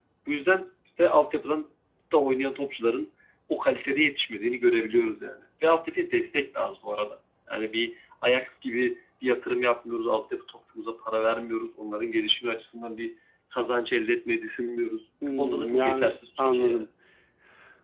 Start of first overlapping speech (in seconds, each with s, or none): 15.2 s